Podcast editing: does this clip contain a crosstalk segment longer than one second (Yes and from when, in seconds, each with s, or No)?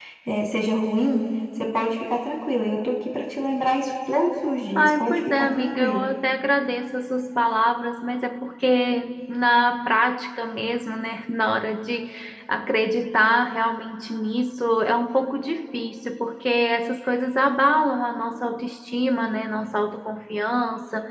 Yes, from 4.8 s